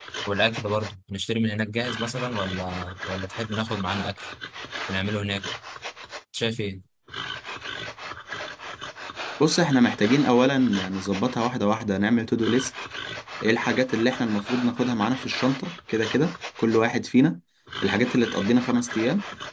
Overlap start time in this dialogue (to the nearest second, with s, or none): none